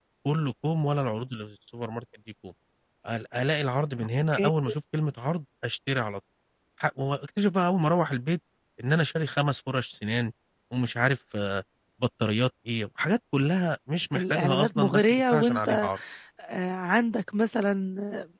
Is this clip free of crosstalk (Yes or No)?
No